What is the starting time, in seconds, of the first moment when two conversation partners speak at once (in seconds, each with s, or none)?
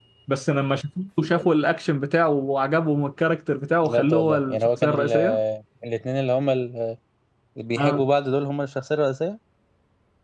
3.8 s